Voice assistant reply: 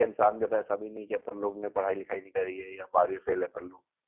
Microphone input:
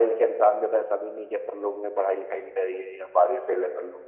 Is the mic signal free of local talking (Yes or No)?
Yes